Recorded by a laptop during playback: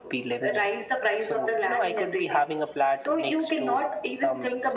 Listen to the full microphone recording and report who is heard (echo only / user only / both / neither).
echo only